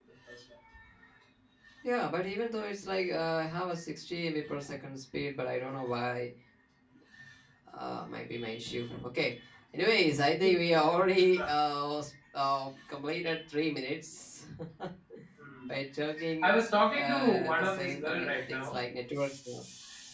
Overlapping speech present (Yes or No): Yes